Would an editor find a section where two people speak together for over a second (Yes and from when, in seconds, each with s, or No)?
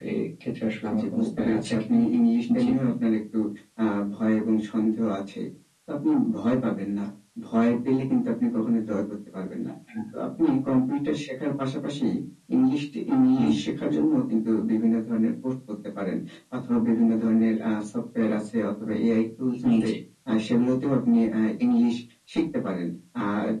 Yes, from 1.0 s